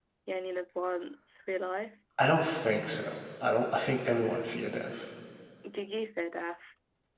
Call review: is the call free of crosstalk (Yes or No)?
Yes